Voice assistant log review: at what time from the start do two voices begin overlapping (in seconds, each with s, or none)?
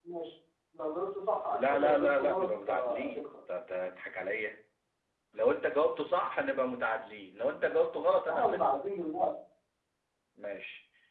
1.6 s